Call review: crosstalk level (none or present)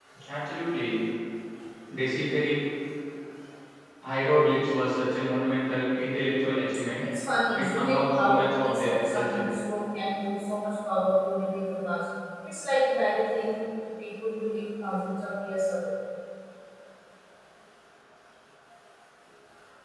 present